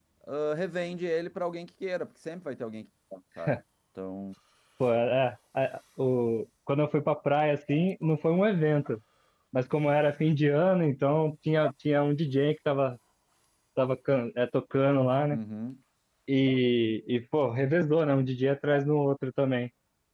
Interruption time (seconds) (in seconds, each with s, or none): none